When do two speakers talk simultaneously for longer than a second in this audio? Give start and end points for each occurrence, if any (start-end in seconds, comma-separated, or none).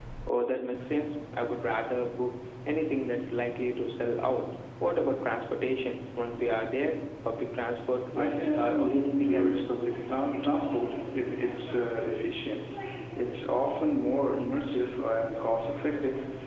8.2-9.5